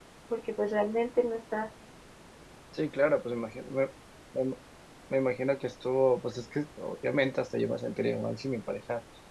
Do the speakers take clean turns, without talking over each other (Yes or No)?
Yes